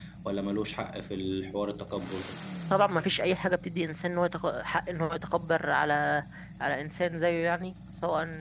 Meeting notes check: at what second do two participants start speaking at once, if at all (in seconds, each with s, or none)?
none